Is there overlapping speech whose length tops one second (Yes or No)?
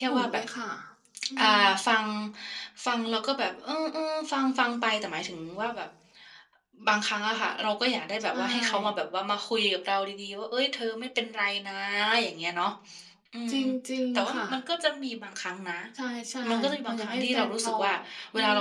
Yes